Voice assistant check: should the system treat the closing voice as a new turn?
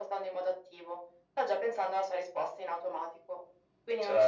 No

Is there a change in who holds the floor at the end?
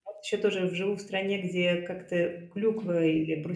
No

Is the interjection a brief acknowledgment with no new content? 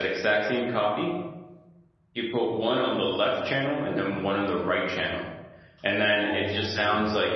Yes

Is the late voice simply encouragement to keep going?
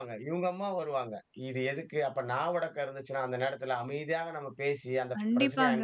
Yes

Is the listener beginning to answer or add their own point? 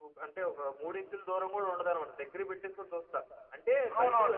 Yes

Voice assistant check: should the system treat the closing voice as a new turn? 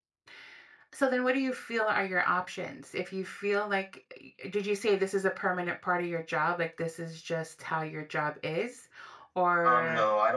Yes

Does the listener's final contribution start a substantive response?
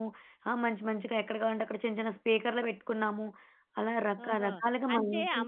Yes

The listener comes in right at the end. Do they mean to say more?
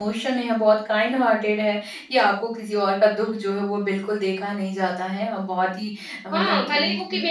Yes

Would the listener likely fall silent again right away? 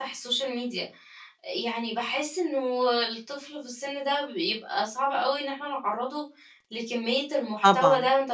Yes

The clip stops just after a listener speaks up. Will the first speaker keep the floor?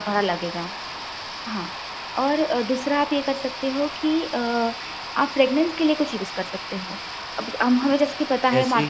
Yes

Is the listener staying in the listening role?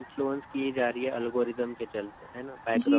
No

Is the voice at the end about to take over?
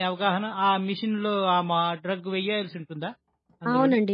Yes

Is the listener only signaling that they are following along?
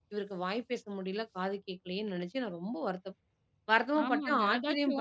No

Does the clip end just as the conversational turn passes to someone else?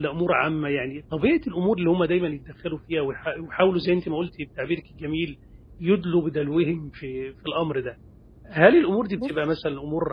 No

